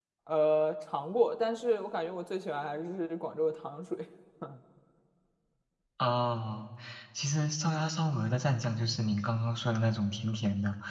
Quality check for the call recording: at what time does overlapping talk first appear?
none

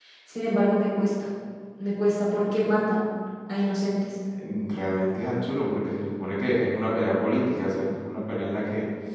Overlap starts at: none

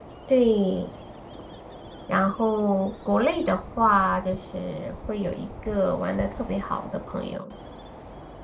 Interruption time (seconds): none

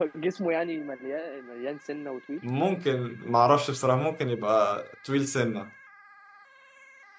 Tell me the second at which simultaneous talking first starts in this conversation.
none

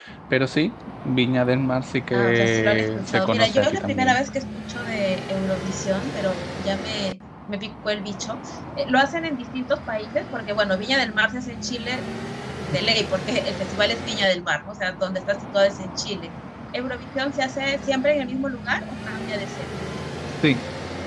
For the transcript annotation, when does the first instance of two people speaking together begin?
2 s

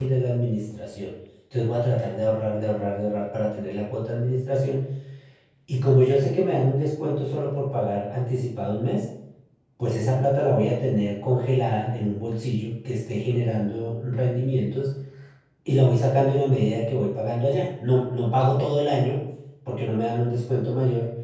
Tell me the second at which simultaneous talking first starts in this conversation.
none

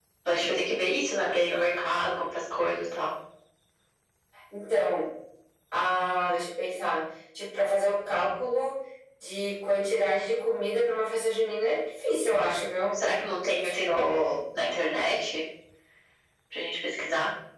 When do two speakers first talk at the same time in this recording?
none

